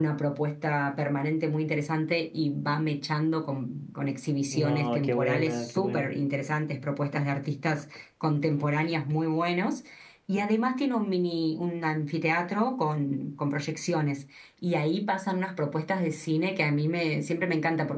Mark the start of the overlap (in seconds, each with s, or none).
4.5 s